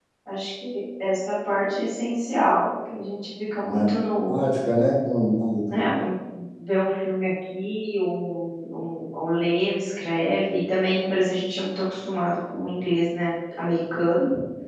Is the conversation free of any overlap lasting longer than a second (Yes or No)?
Yes